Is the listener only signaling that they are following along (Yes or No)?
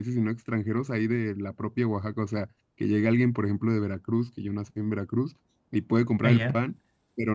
Yes